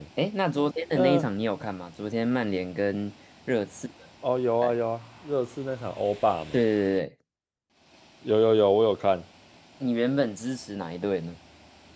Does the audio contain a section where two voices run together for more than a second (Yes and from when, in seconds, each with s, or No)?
No